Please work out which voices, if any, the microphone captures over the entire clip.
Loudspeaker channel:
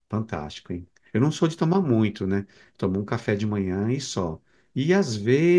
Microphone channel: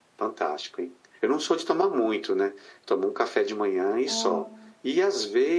both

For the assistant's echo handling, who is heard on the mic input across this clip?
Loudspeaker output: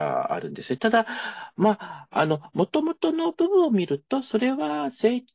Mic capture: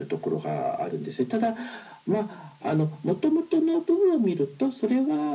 echo only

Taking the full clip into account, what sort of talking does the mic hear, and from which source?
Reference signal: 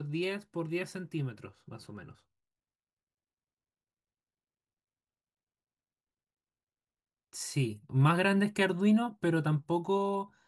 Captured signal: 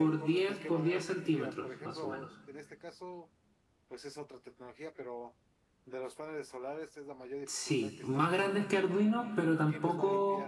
both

